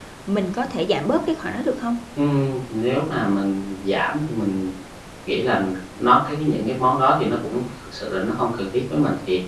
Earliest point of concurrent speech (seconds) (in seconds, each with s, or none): none